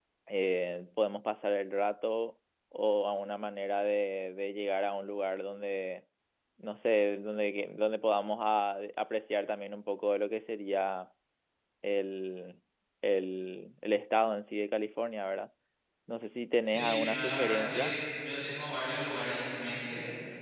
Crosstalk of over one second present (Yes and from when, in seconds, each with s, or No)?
Yes, from 16.6 s